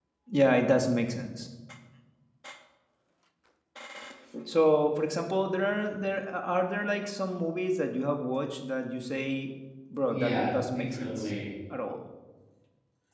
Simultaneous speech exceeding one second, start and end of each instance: 10.1-11.3

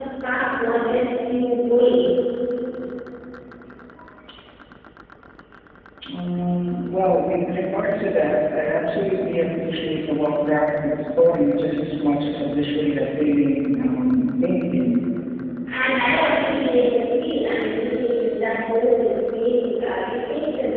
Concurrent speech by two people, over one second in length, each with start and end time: none

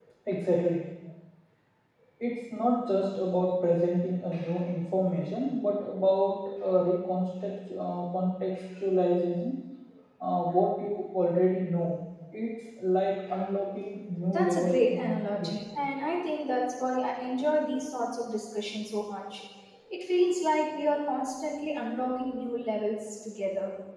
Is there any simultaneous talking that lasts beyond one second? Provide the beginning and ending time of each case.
14.3-15.6

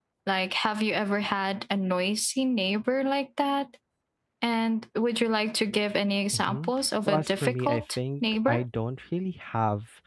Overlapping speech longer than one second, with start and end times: 7.1-8.6

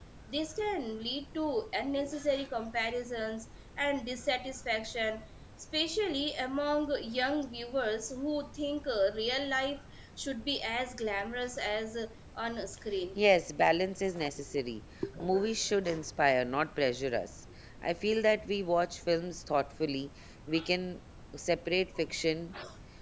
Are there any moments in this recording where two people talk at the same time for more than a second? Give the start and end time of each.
none

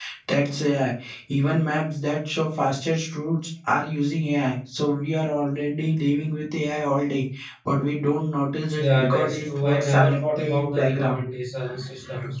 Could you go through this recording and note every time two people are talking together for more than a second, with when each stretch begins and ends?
8.7-11.2

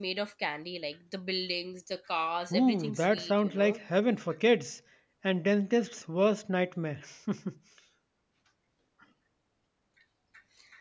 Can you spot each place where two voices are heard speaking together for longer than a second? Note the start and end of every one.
2.5-3.8

